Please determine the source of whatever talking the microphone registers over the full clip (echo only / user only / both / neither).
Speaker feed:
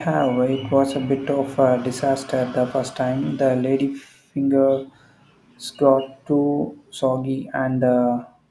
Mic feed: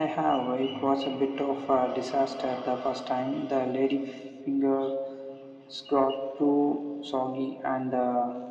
echo only